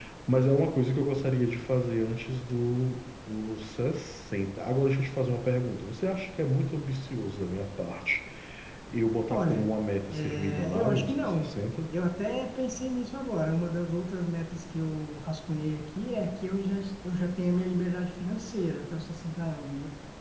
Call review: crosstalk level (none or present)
present